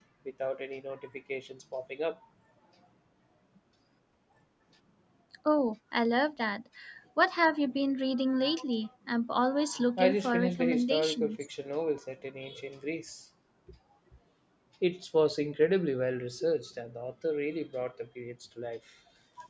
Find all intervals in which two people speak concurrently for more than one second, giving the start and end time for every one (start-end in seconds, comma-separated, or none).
10.0-11.4